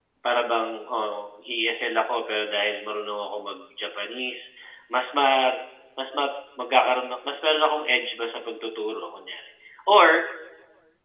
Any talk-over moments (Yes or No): No